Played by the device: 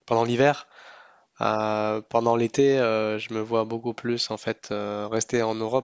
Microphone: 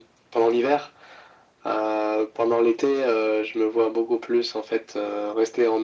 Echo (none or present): present